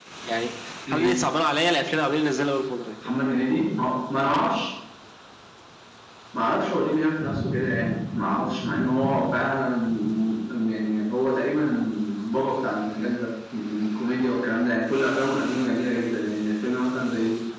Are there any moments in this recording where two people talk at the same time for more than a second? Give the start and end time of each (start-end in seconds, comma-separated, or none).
none